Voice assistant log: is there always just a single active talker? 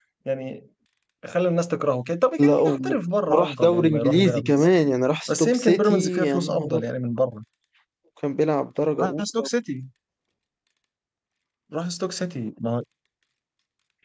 No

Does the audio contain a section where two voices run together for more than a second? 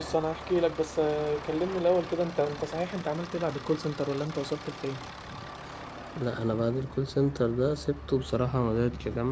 No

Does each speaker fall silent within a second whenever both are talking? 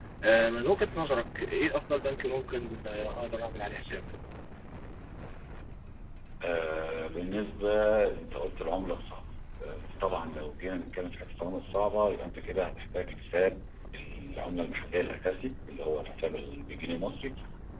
Yes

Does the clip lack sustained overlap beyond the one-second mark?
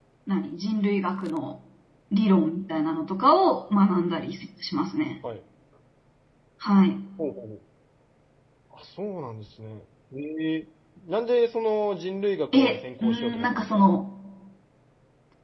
No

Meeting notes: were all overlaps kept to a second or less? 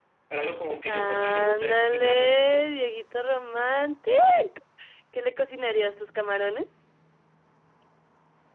No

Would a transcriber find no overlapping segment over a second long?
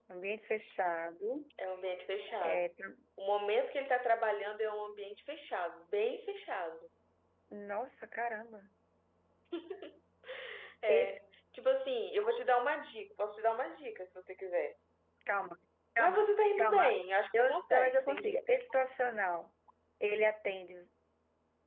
No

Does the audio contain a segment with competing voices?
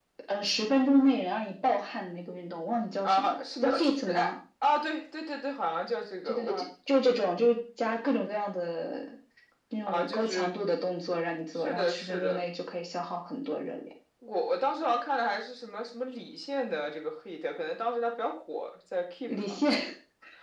Yes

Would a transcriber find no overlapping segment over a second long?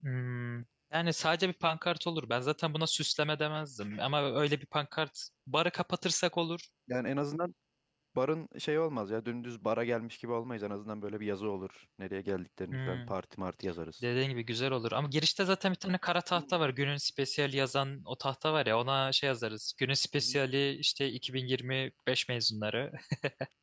Yes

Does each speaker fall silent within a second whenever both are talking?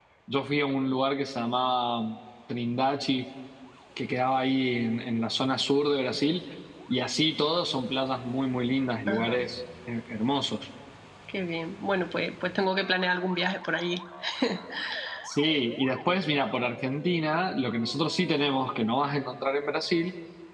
Yes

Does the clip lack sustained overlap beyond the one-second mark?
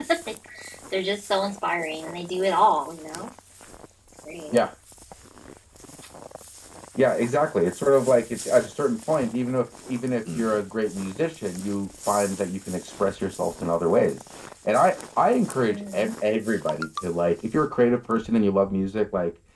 Yes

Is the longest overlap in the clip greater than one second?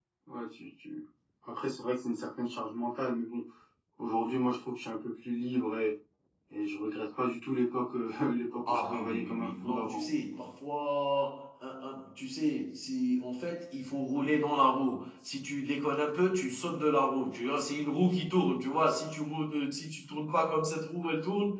Yes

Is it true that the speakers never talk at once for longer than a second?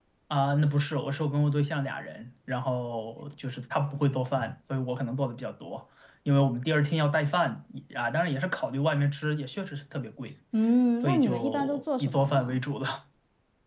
No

